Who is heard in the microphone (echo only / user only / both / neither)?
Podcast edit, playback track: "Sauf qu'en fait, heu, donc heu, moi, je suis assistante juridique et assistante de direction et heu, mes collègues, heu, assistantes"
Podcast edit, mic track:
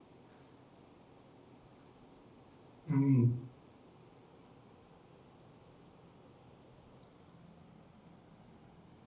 user only